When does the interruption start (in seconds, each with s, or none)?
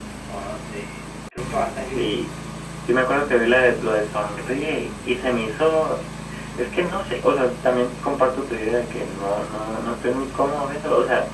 none